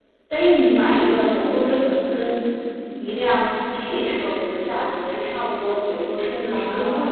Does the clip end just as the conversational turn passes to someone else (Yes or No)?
No